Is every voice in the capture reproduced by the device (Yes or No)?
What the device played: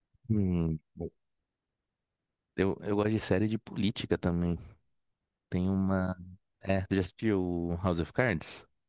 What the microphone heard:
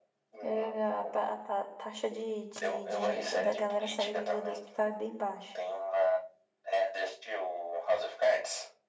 No